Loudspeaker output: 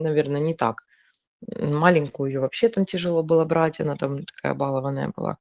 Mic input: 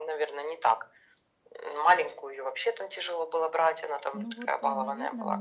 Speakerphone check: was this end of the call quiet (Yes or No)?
No